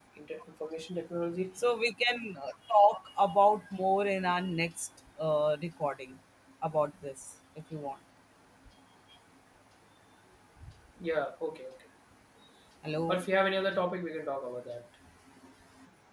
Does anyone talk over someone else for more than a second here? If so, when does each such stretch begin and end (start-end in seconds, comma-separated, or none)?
none